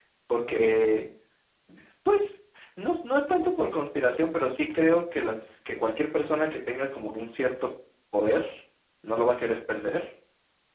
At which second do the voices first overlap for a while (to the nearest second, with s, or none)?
none